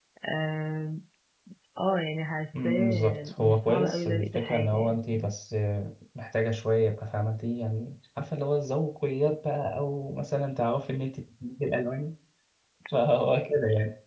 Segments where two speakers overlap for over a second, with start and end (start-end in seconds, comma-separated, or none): 2.6-5.3